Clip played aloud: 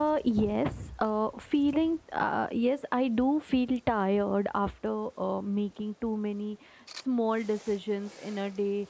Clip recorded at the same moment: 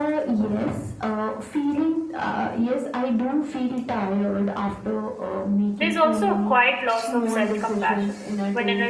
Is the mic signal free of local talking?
No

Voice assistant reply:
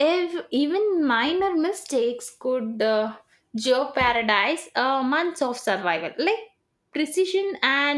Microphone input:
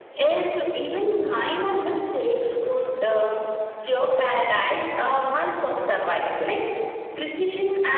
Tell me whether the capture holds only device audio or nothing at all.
Yes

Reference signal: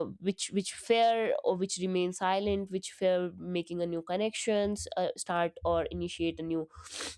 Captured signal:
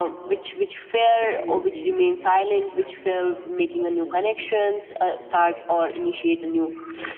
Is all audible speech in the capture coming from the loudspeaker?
No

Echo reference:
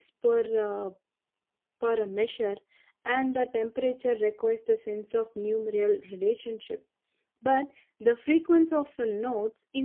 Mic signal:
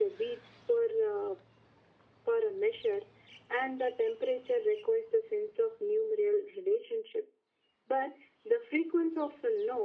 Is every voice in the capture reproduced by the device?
Yes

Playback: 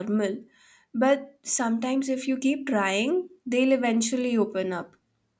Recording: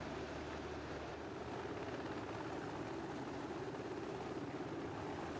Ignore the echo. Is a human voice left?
No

